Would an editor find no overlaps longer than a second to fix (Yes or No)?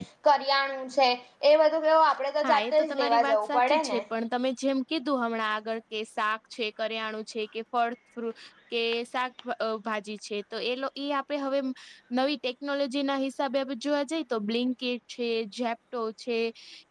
No